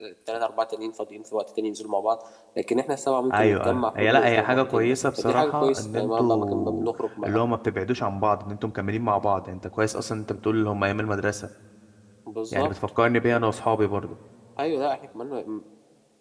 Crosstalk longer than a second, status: present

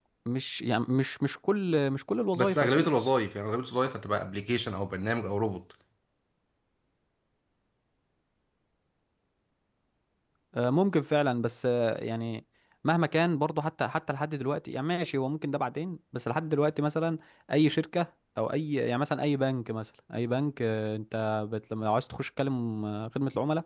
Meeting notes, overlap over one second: none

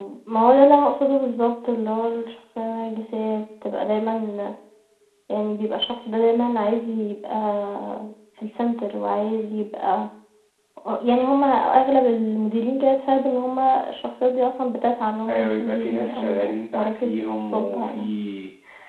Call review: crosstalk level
present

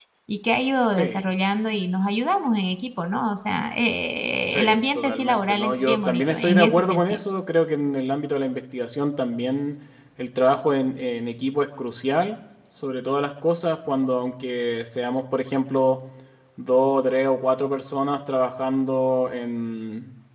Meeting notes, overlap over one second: present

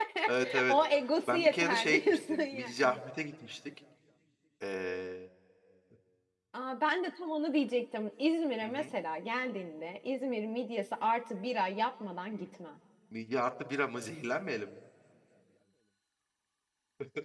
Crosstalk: present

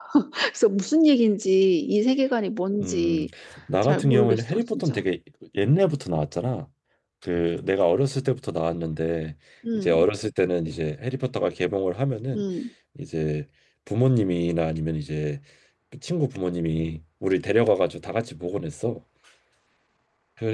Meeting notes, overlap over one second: present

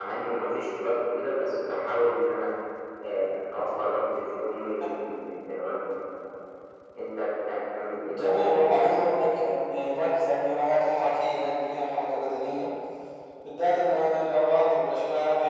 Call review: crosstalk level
present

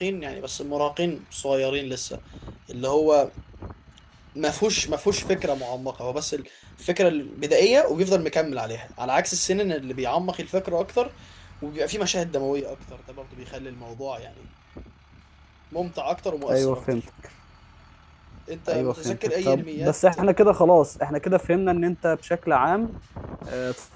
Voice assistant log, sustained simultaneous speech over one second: present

